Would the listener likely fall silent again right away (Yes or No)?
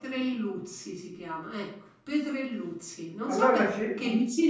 Yes